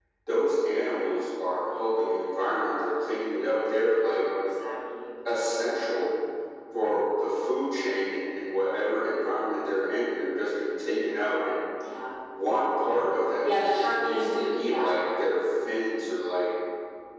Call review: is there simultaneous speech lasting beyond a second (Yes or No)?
Yes